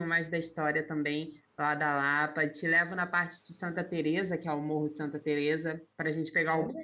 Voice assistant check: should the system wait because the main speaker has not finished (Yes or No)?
No